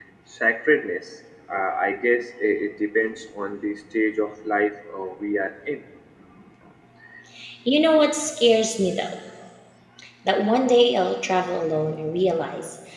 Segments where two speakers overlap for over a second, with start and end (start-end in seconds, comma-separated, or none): none